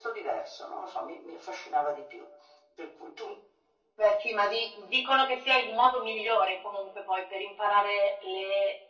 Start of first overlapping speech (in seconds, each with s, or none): none